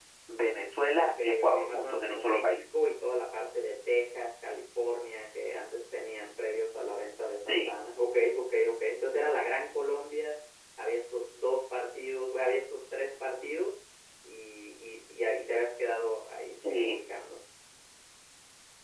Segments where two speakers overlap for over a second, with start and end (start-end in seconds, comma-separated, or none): 1.0-2.7